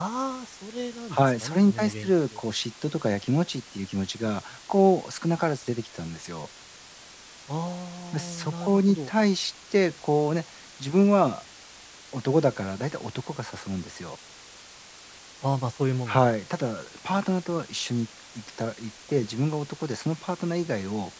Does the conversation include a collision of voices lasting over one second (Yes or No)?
Yes